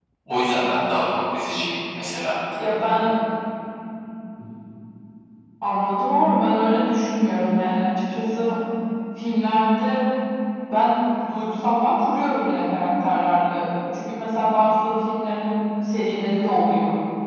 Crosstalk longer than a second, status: none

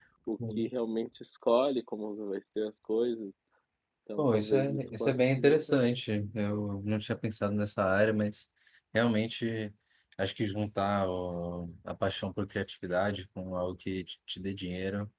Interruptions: present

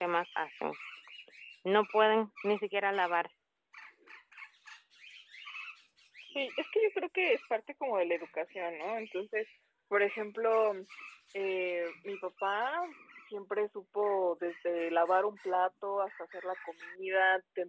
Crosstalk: none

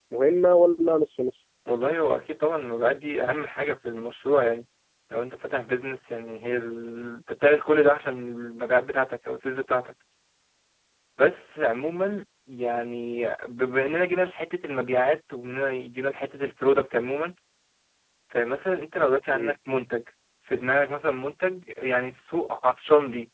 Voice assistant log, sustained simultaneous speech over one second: none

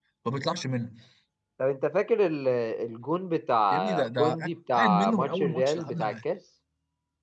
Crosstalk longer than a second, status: present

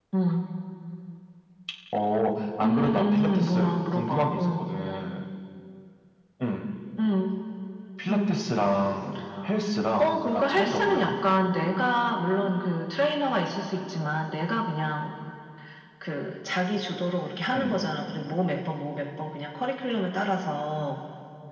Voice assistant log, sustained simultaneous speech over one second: present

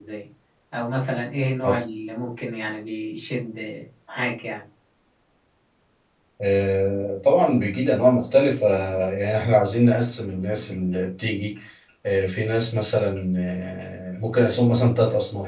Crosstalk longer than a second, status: none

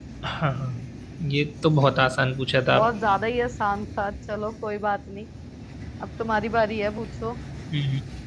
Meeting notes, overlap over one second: none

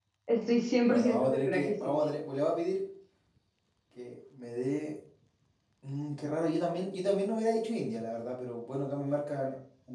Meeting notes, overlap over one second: present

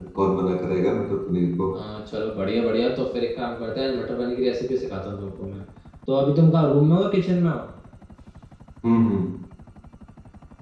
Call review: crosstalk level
none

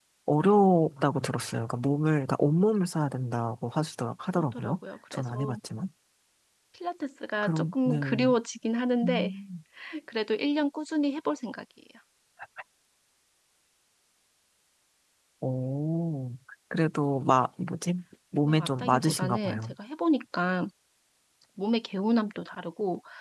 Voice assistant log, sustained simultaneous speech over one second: present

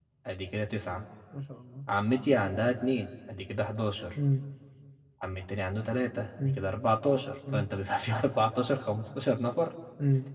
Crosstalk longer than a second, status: none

